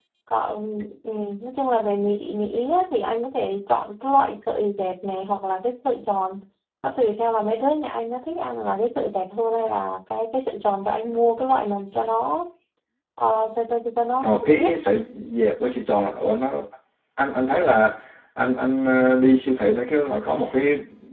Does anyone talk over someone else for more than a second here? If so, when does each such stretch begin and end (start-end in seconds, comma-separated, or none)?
none